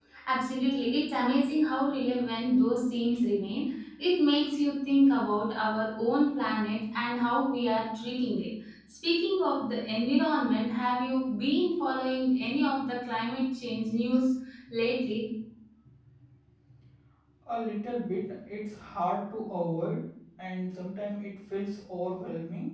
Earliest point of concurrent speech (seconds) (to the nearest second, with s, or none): none